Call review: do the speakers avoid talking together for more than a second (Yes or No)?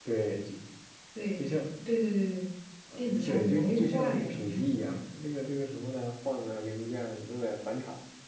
No